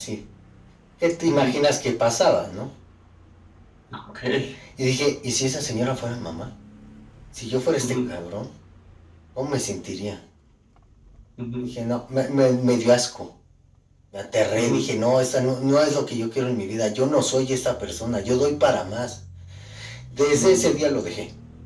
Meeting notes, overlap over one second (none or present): none